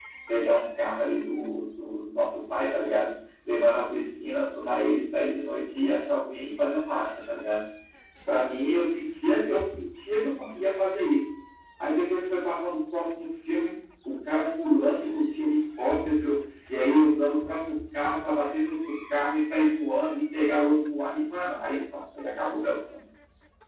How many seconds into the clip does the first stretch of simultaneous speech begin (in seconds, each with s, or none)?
none